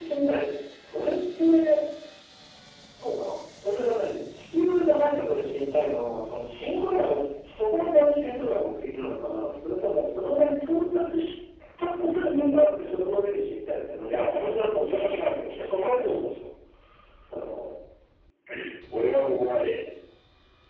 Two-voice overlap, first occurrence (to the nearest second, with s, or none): 14 s